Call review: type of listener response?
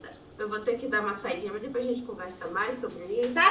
taking over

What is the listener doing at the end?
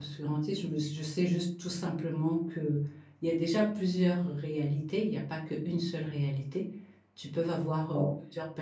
listening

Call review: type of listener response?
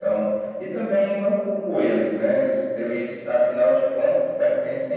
listening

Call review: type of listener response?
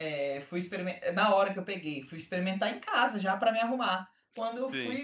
taking over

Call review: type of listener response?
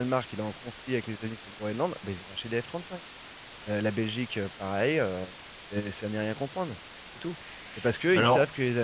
listening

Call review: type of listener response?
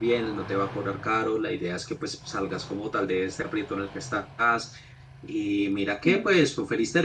listening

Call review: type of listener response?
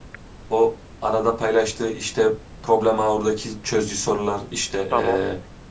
listening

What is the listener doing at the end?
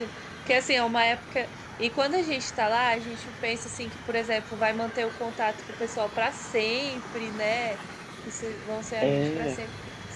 listening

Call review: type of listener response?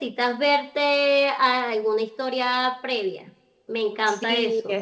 taking over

